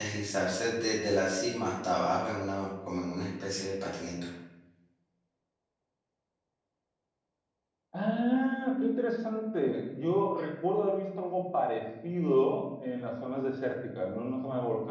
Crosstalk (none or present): none